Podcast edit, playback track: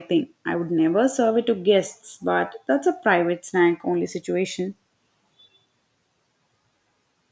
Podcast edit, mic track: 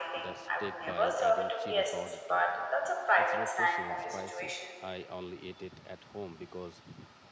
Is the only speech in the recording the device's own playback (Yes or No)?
No